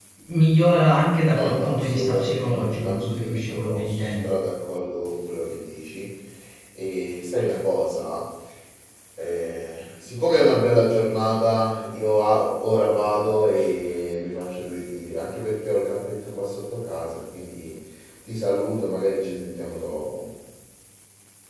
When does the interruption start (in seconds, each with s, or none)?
1.4 s